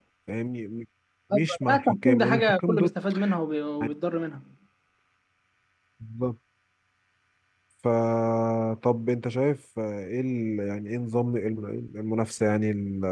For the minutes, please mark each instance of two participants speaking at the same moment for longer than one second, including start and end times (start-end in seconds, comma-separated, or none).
1.3-2.9